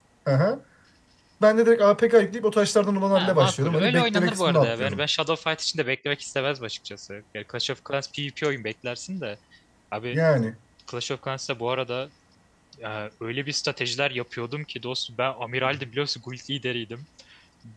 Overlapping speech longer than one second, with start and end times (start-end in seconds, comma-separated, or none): 3.1-5.0